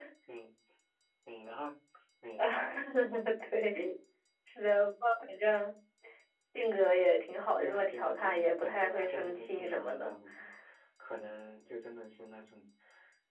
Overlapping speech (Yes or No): Yes